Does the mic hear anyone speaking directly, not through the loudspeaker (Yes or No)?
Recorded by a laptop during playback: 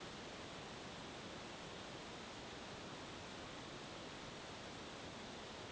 No